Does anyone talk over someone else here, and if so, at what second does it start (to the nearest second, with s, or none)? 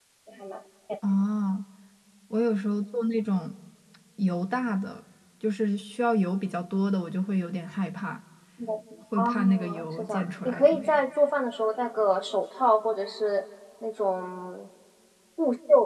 9 s